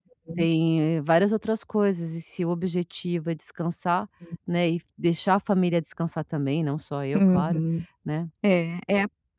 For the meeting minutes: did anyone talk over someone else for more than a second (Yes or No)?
No